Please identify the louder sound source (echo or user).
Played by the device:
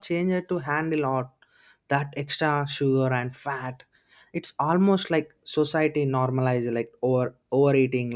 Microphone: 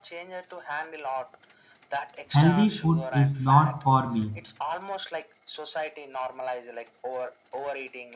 user